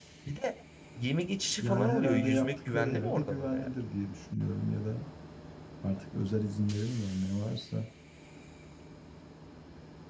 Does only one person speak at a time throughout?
No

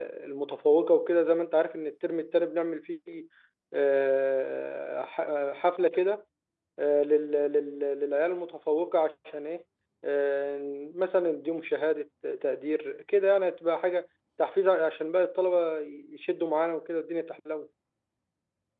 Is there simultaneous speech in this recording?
No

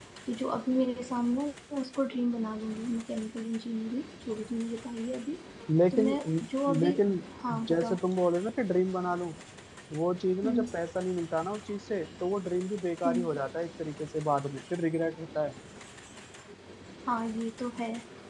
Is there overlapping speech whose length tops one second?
No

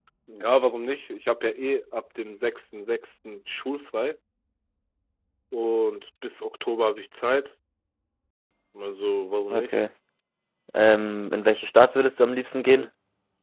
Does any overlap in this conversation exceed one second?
No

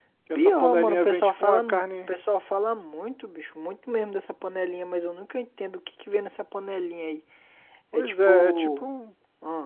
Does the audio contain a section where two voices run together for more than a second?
Yes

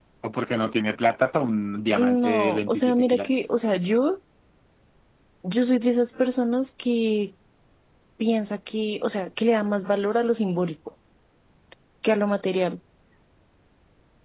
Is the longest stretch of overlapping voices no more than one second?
No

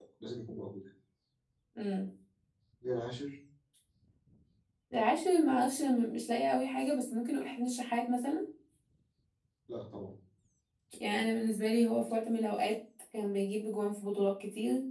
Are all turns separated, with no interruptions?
Yes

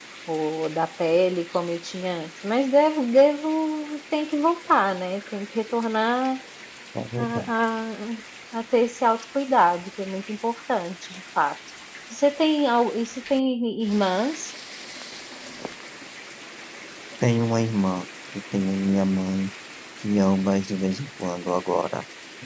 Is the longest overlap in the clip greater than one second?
No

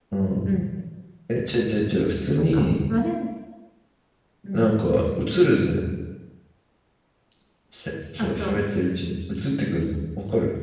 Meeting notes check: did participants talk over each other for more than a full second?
No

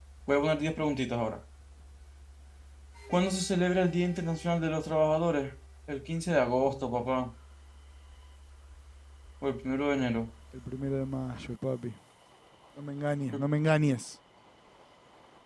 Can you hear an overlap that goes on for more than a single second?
No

